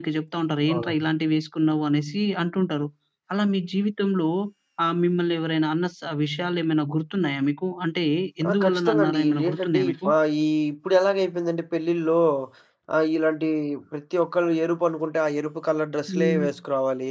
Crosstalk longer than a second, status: present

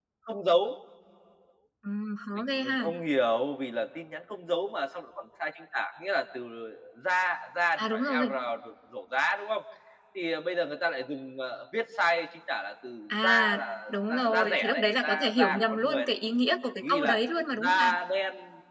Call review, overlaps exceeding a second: present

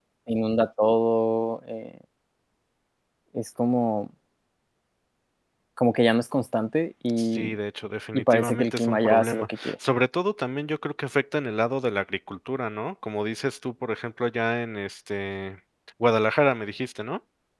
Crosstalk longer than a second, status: present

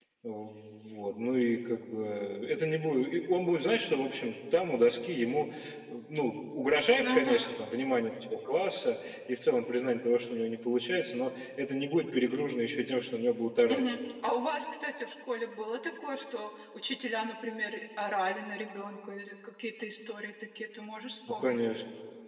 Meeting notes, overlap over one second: none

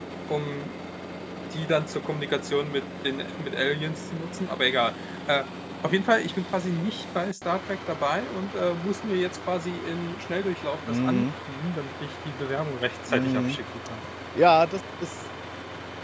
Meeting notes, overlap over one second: none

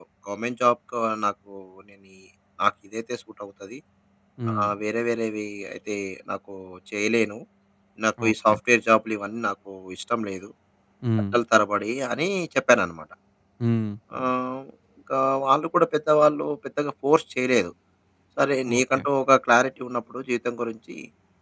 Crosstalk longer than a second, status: none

